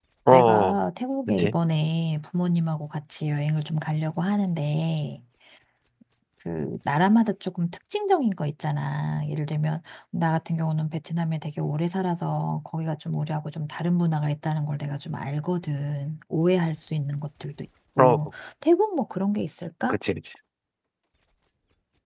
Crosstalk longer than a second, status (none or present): none